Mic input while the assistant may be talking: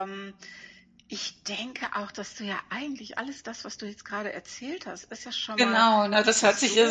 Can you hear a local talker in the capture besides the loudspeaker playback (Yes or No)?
Yes